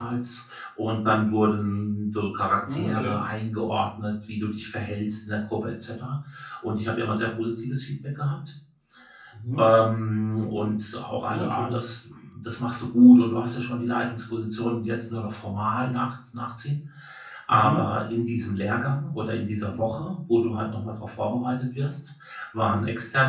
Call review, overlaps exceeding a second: none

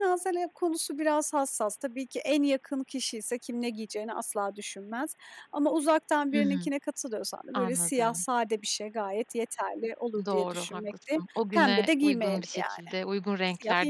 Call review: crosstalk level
present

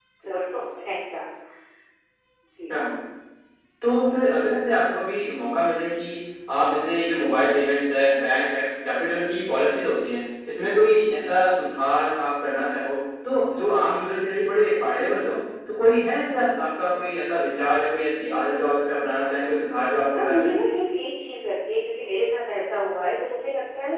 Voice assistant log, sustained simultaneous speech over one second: none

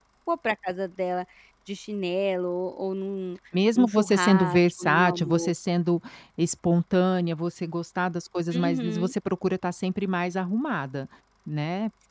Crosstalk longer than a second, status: present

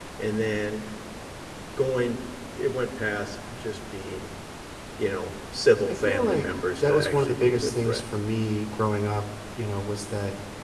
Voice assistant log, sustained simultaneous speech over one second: present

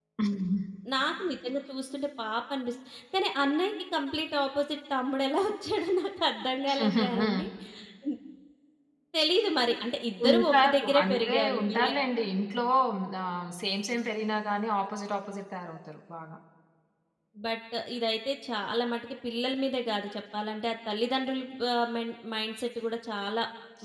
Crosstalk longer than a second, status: present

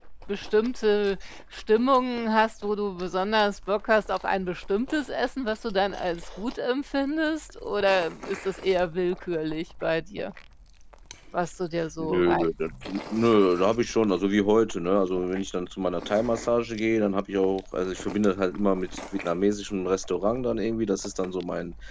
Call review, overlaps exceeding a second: none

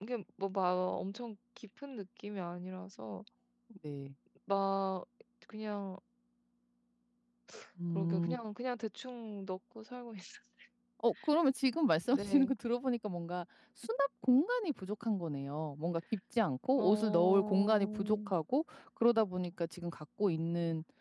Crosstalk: present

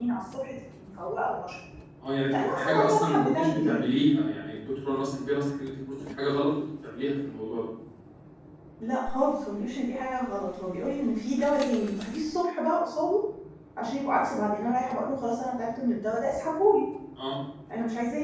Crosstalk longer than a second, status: present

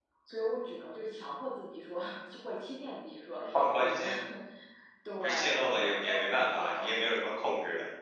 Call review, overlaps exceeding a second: present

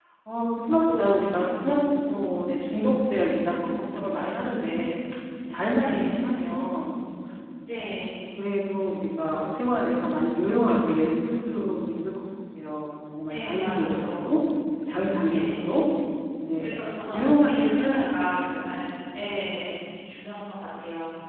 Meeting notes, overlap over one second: present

